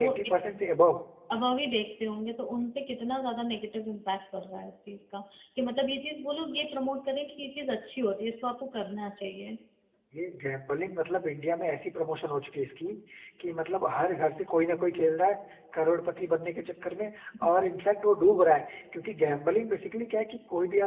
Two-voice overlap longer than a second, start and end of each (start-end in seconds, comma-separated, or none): none